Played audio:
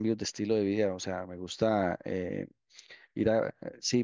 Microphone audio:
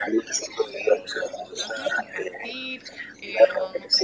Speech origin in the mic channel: both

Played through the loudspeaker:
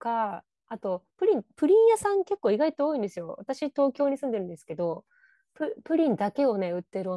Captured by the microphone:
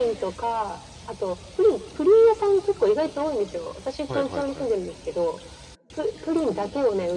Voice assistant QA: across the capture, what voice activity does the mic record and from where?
both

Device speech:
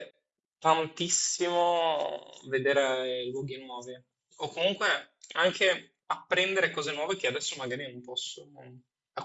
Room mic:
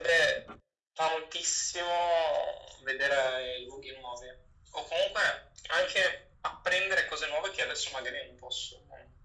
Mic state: echo only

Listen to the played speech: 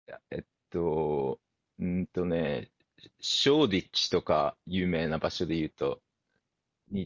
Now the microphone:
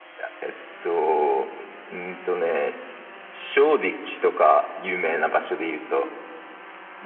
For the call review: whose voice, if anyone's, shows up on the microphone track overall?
echo only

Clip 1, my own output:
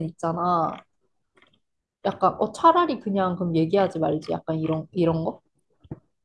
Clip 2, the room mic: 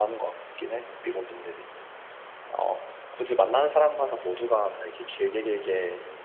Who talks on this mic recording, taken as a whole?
user only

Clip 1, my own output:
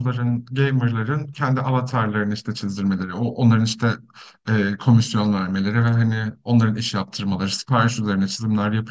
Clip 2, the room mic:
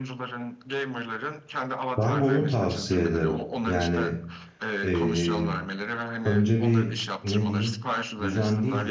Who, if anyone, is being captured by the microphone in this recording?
both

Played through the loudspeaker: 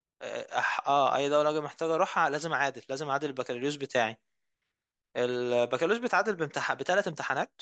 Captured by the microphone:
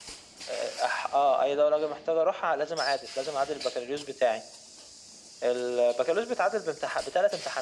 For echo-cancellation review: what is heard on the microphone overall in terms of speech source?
echo only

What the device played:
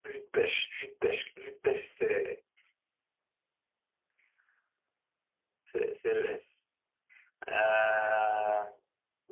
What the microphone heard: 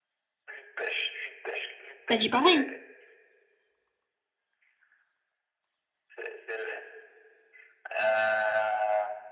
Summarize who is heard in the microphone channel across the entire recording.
both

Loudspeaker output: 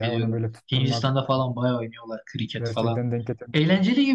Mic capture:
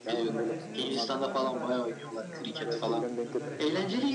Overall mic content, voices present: both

